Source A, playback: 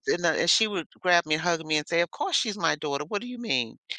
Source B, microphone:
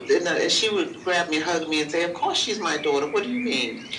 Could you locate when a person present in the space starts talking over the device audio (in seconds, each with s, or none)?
none